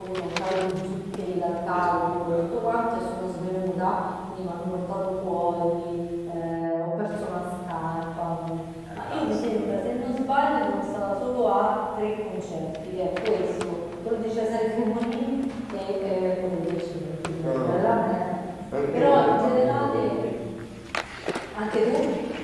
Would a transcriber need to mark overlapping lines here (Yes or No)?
Yes